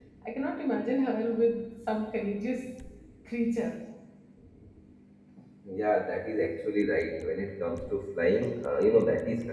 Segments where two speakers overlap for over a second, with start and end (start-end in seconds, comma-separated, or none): none